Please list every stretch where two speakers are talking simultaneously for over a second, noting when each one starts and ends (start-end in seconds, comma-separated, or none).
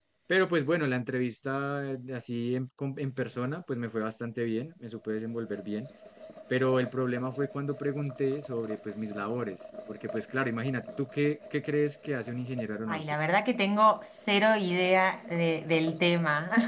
none